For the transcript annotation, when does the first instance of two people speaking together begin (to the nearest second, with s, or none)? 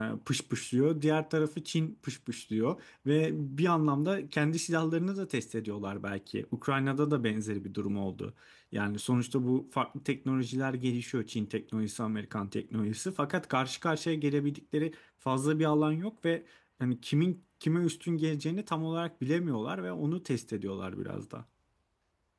none